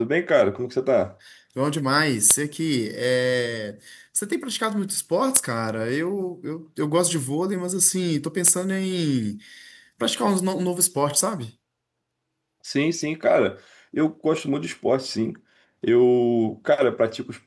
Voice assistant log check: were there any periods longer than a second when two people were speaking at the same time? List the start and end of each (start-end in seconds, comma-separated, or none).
none